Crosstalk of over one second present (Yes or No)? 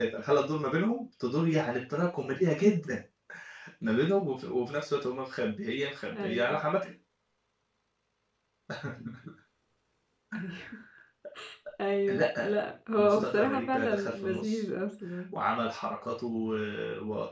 Yes